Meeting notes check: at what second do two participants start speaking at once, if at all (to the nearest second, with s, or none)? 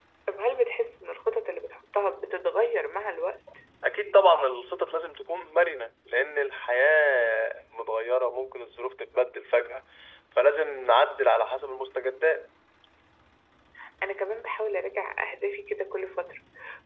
none